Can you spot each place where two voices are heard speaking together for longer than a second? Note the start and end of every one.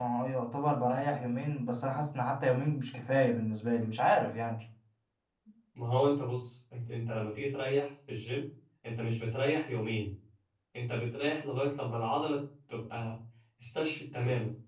none

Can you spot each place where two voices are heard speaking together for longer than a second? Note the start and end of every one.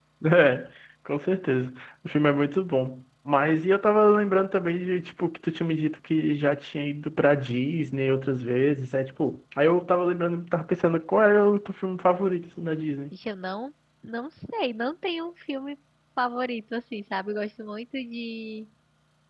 none

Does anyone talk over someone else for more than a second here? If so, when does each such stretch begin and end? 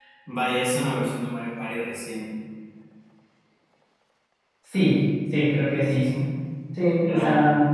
none

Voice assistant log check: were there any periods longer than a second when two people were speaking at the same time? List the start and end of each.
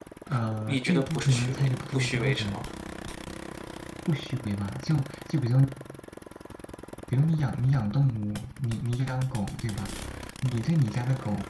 0.7-2.7

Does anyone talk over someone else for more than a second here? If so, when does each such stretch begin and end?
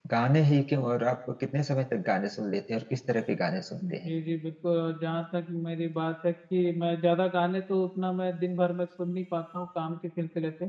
none

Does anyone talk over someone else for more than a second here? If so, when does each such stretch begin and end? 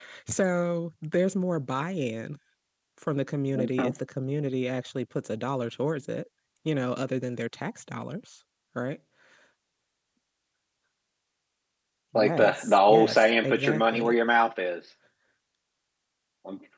12.2-14.1

